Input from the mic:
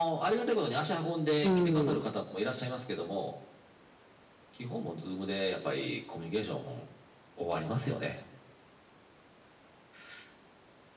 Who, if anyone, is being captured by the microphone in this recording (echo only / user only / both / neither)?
both